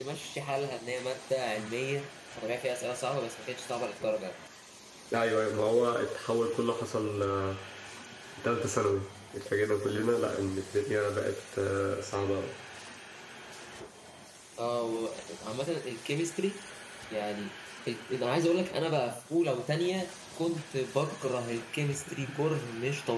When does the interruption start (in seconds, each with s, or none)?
none